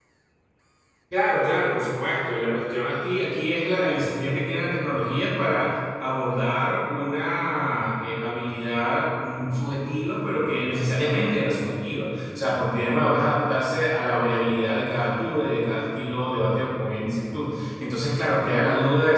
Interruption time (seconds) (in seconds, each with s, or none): none